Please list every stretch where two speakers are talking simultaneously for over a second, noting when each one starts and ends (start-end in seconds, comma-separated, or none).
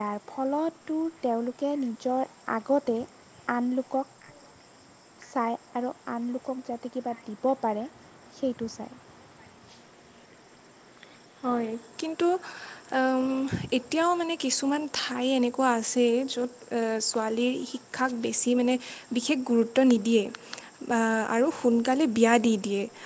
none